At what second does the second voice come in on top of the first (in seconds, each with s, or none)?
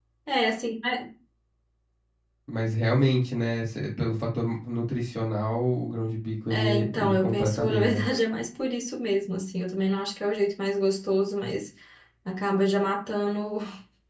6.5 s